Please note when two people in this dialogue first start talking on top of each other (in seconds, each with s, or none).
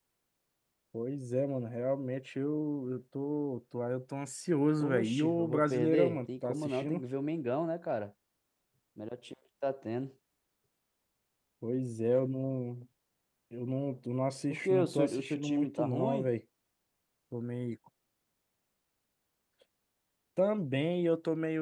4.8 s